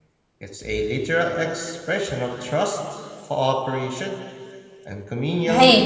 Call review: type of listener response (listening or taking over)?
taking over